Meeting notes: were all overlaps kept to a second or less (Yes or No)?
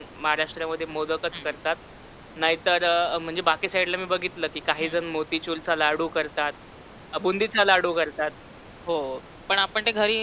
Yes